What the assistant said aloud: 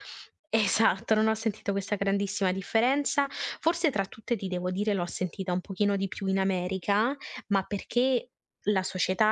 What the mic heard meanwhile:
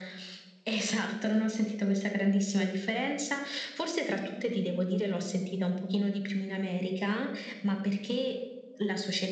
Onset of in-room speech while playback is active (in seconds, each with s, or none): none